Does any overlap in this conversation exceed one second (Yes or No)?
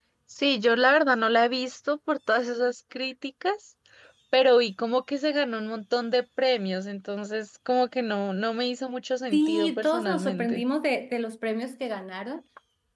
Yes